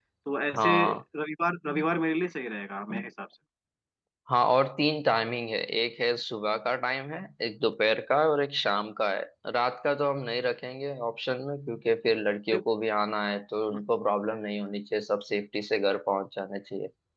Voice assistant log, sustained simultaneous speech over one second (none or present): none